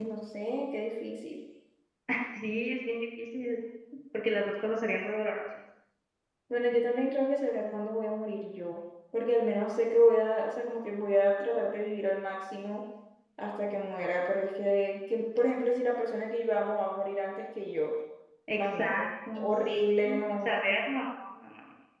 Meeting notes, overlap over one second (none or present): present